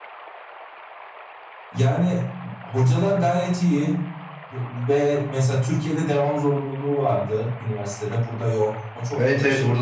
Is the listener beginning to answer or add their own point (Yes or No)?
Yes